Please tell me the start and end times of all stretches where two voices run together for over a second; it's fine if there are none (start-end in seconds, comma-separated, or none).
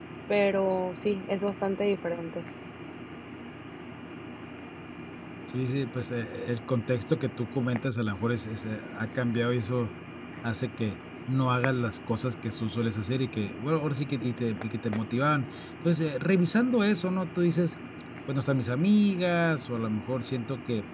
none